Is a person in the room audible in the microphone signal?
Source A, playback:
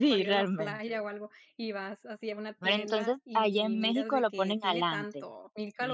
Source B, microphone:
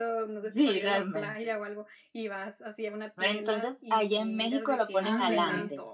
Yes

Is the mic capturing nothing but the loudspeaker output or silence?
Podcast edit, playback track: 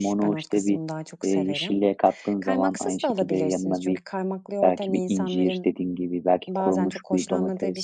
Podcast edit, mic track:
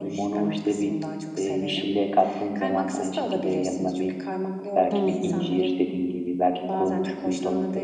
No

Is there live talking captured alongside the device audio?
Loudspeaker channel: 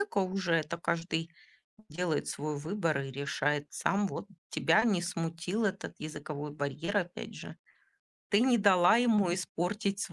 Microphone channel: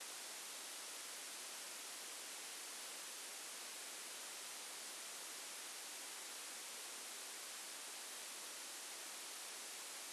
No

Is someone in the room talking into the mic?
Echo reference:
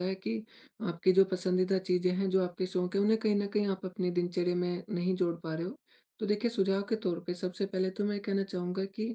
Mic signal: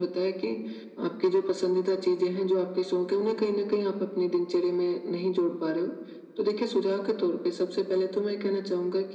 No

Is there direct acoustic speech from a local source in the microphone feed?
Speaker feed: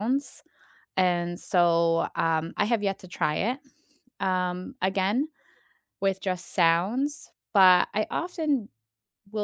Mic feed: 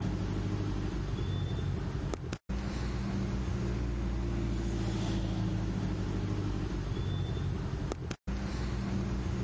No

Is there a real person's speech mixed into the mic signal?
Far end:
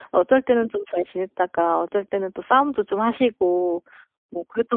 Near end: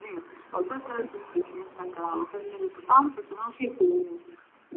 No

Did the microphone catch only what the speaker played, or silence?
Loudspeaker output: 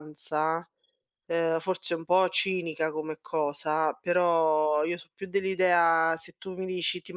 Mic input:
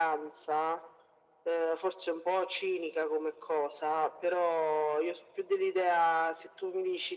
Yes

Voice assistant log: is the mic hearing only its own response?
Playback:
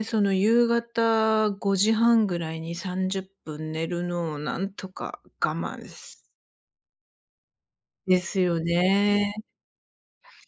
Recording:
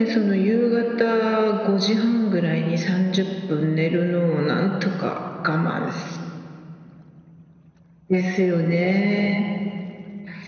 Yes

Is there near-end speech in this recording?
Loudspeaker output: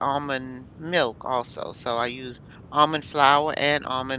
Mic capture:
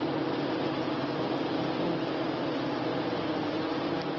No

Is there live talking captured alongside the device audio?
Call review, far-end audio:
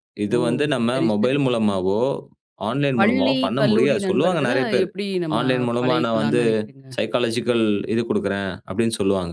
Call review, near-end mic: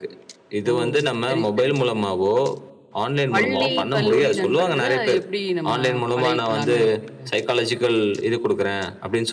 Yes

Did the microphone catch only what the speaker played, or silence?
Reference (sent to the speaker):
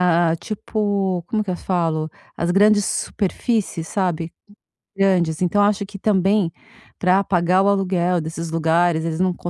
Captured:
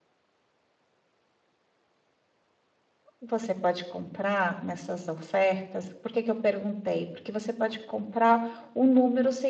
No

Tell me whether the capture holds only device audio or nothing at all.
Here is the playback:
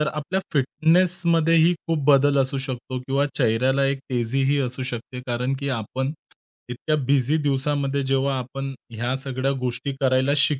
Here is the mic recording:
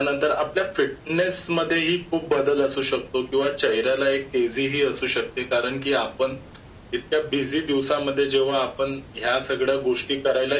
Yes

